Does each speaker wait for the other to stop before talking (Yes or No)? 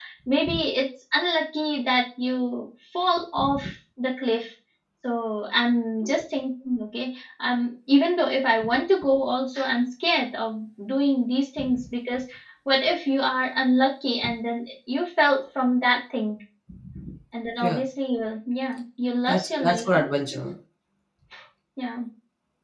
No